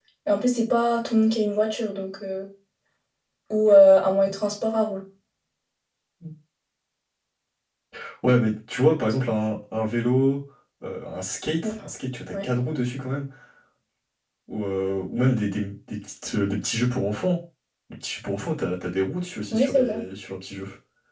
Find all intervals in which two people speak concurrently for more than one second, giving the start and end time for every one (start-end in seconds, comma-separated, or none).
none